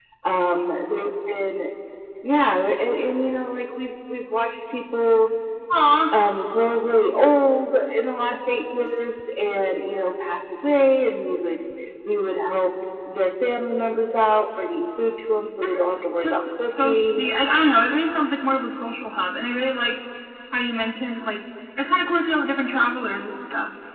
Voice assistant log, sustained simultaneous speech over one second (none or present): present